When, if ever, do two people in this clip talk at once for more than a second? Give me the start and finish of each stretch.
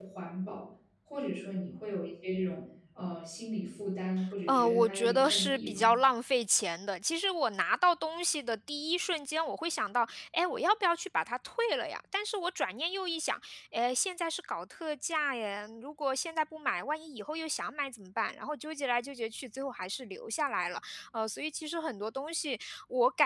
4.5-5.9

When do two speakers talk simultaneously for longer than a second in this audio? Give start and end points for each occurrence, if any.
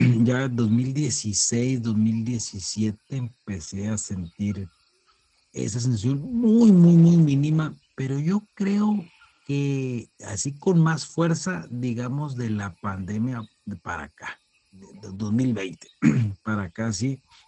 none

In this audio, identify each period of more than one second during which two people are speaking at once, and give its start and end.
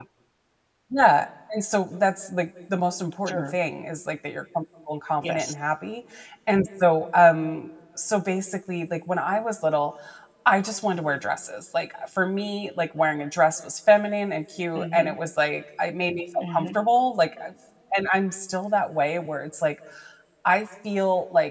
none

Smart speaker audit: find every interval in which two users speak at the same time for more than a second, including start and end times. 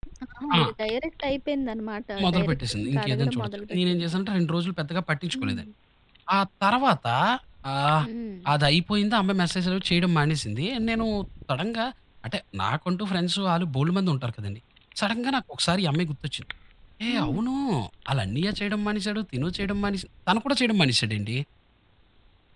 2.2-4.1

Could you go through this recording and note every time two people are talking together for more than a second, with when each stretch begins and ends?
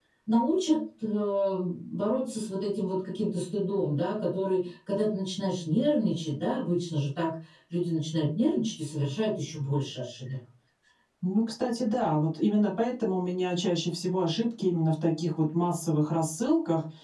none

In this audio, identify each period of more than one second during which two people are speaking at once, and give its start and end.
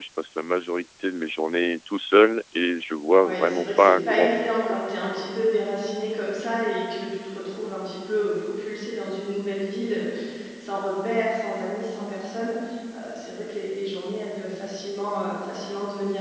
3.2-4.8

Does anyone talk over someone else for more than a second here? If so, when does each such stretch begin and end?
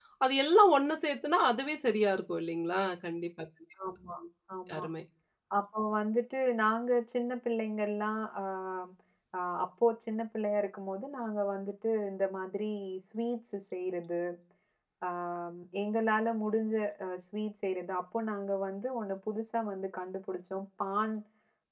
none

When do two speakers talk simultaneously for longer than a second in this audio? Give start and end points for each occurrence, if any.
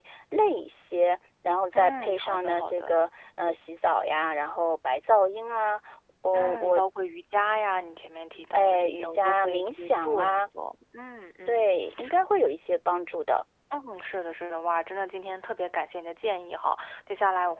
1.7-3.0, 8.5-10.4

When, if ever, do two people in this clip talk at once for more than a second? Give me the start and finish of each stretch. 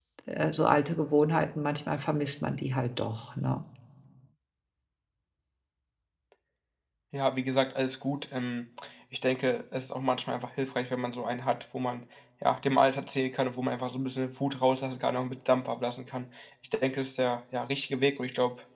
none

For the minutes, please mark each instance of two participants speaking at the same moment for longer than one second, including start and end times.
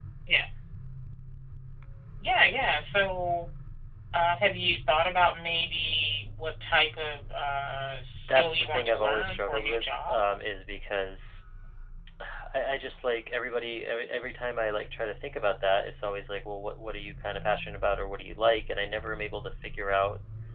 8.3-10.2

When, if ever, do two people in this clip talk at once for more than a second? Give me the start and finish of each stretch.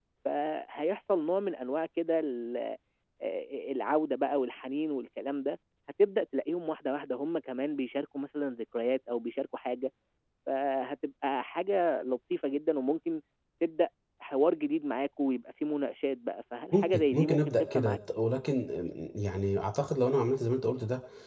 16.7-18.0

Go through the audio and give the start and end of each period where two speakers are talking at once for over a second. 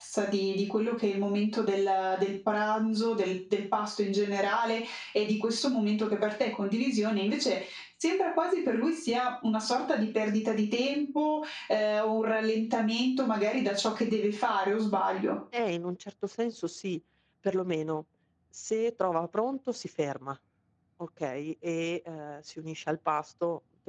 none

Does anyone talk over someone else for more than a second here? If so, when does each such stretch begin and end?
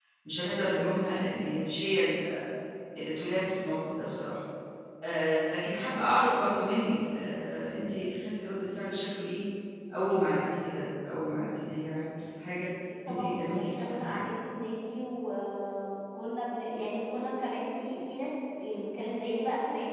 13.1-14.3

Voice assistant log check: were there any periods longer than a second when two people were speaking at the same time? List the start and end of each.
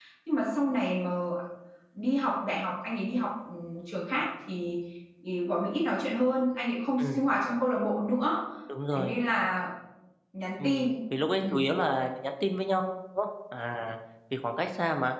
none

